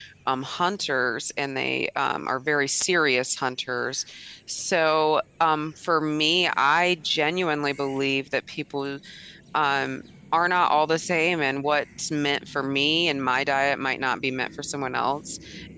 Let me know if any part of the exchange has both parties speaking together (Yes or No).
No